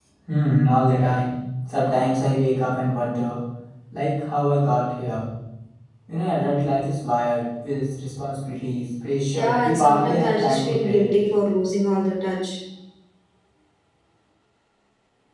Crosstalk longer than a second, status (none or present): present